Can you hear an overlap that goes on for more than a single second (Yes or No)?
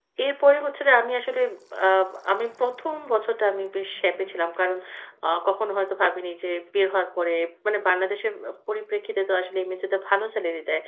No